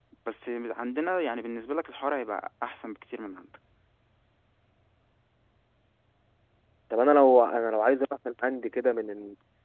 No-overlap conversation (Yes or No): Yes